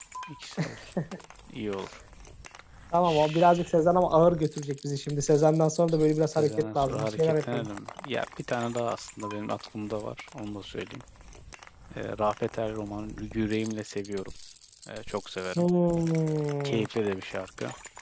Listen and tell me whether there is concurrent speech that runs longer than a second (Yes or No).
Yes